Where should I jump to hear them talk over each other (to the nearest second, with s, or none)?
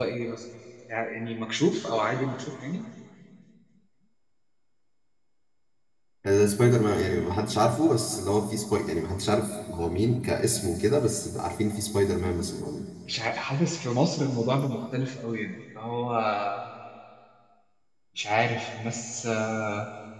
none